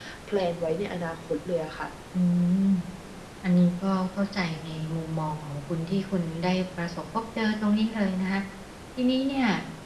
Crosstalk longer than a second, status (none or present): none